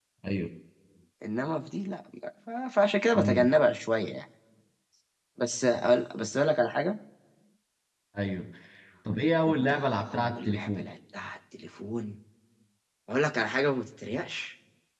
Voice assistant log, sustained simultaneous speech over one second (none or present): present